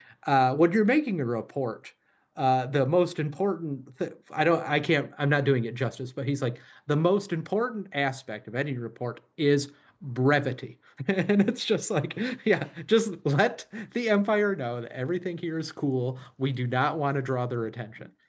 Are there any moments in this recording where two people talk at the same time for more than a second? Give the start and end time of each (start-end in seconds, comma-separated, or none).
none